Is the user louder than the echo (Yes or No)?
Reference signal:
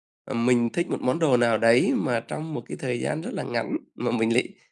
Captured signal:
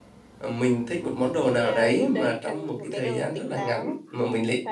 No